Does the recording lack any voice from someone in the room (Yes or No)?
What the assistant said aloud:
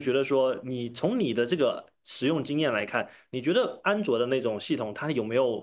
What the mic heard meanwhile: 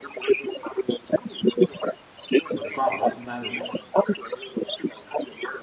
No